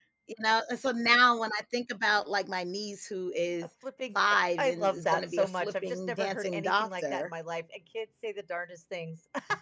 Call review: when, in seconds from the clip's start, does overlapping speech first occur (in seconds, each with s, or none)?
4.6 s